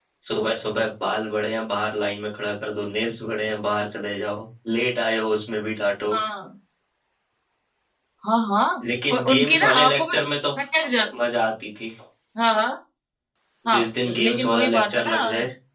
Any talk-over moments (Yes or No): Yes